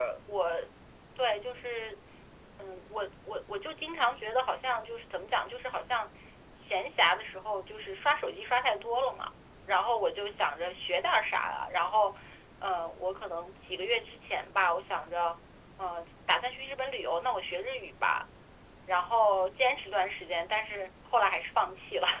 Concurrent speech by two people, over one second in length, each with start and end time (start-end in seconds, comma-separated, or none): none